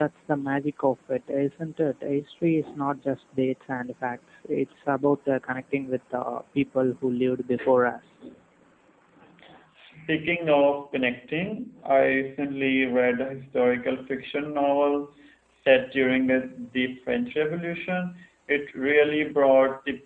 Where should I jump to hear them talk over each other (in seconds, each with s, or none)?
none